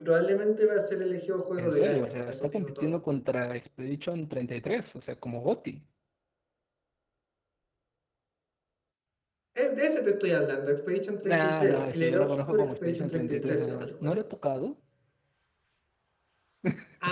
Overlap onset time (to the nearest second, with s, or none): 2 s